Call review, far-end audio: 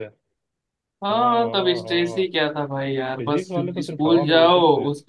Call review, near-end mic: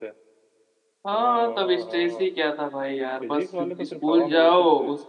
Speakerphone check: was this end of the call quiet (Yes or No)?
Yes